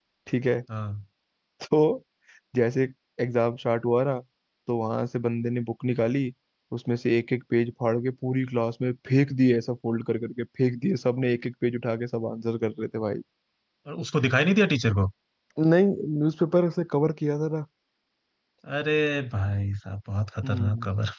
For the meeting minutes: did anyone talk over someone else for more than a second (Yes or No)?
No